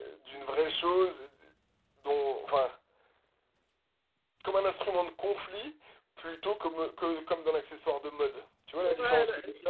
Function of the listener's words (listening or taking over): taking over